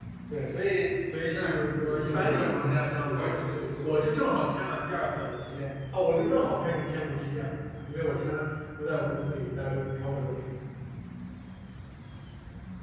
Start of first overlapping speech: 1.3 s

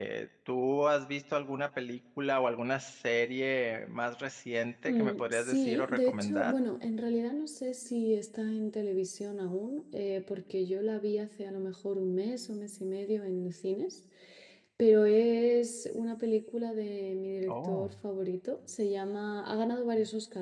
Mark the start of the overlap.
4.8 s

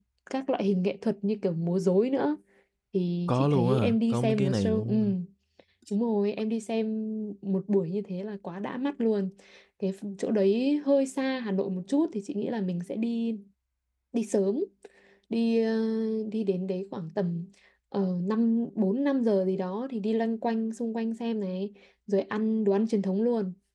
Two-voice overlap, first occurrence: 3.3 s

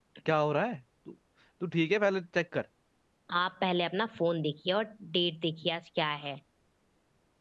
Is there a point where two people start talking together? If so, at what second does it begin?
none

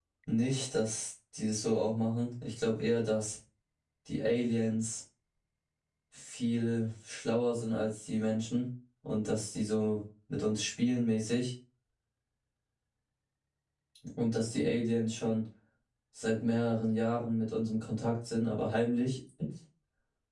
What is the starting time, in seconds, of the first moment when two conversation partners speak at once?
none

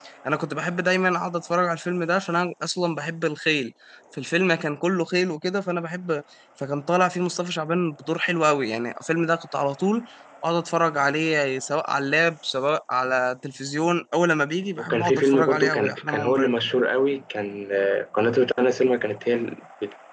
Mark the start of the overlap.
14.8 s

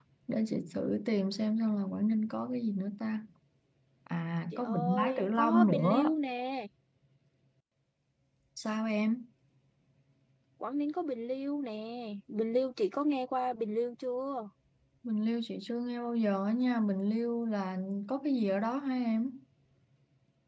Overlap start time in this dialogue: 4.5 s

